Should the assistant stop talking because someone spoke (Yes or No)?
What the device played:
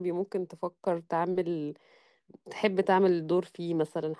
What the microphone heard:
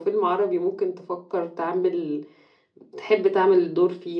No